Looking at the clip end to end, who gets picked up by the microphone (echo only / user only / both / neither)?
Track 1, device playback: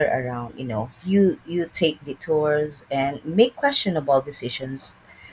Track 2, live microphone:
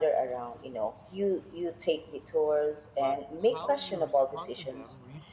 both